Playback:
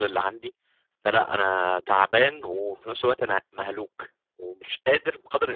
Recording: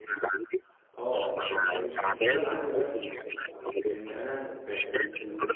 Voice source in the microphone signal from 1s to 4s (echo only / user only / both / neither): both